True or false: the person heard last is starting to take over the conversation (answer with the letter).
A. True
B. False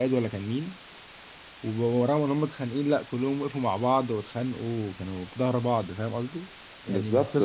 B